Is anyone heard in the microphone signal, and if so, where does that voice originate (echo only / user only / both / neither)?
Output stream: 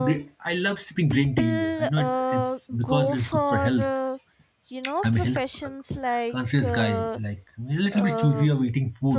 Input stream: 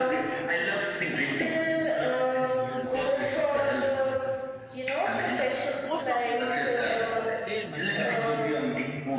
both